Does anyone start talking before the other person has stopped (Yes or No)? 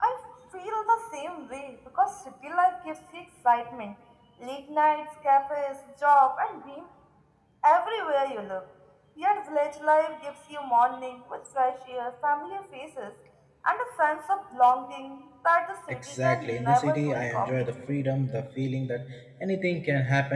Yes